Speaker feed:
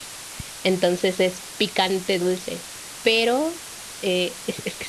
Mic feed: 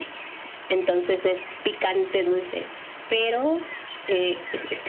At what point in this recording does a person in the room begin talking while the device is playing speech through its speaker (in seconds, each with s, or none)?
none